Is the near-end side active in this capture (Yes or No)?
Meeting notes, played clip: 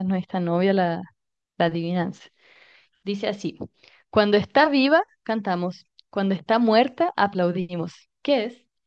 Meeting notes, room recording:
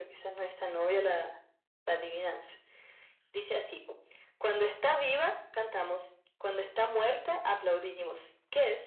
No